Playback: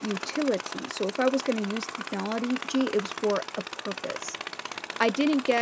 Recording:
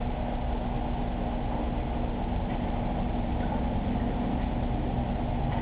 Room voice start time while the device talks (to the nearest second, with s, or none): none